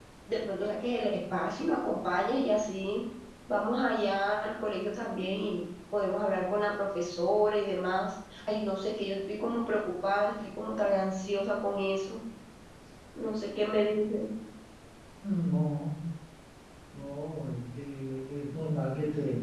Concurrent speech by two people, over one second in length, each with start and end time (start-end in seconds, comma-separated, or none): none